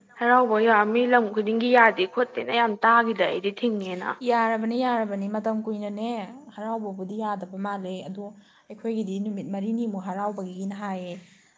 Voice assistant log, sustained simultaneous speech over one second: none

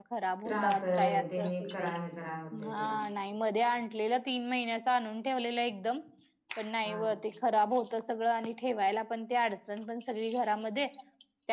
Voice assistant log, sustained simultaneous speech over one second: present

